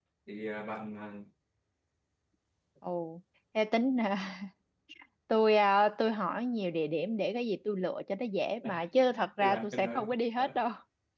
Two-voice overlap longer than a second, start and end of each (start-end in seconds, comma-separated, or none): 9.1-10.6